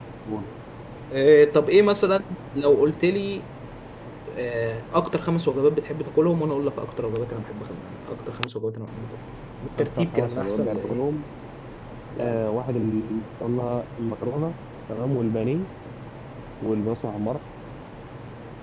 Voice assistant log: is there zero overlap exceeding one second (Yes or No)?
No